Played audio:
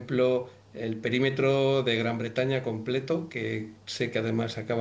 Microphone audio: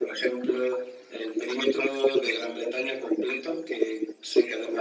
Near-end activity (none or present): none